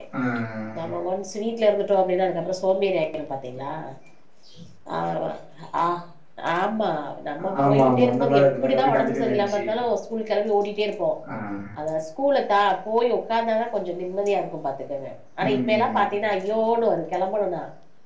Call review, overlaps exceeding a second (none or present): present